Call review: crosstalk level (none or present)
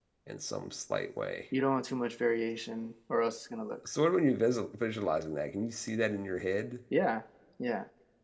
none